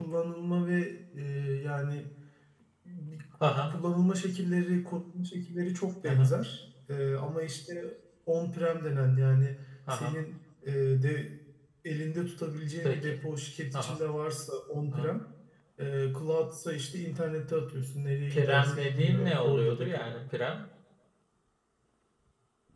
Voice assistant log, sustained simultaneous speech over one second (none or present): present